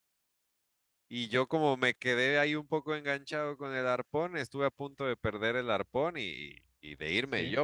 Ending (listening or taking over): listening